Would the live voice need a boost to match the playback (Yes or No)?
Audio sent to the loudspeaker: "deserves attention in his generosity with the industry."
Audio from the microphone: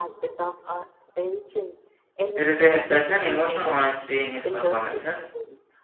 No